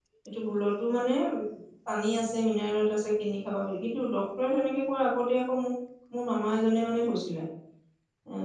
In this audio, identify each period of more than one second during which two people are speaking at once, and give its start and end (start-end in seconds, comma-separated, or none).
none